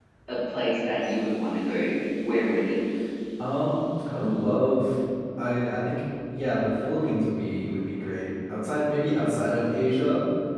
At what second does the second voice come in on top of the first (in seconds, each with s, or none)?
none